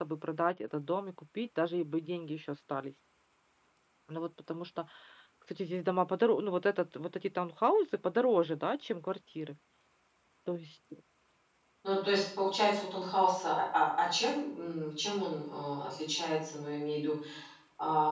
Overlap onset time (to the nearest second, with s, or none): none